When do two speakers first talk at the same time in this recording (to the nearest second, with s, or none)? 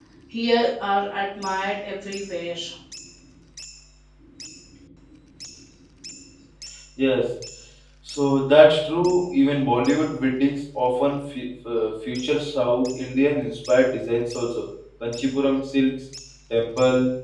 none